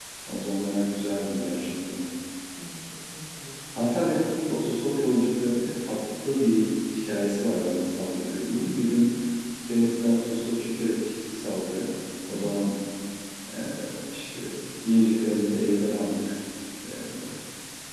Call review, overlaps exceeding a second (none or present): none